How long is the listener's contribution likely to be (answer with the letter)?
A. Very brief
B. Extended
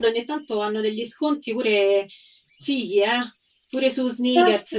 B